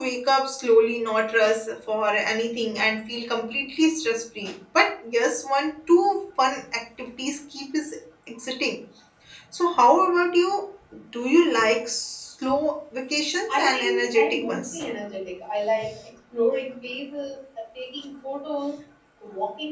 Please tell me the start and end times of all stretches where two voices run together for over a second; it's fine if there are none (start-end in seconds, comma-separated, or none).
13.5-14.8